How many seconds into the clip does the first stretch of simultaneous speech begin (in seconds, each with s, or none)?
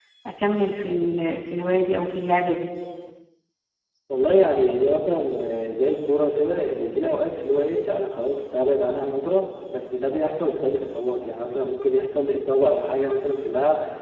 none